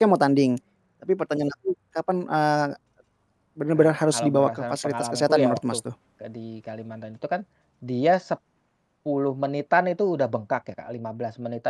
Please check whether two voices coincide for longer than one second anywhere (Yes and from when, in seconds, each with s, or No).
Yes, from 3.8 s